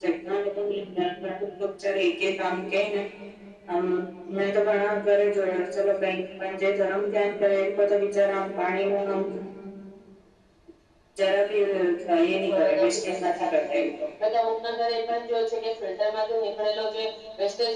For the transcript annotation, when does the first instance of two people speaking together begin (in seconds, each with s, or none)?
12.5 s